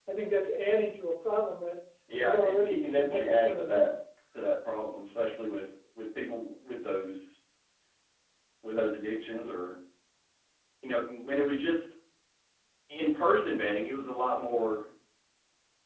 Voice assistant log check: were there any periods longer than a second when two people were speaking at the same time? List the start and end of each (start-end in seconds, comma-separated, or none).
2.2-3.9